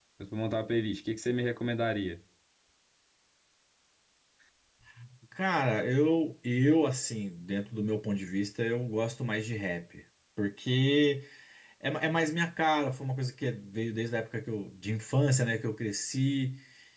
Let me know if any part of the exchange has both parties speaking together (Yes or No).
No